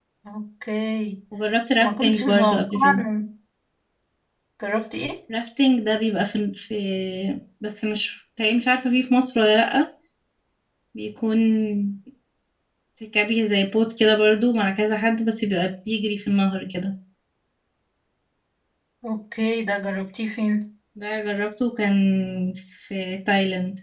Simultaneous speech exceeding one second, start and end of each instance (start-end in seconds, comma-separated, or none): 1.8-3.0